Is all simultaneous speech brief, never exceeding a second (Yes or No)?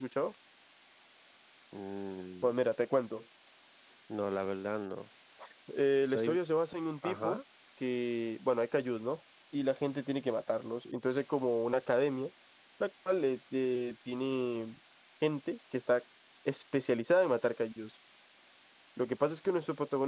Yes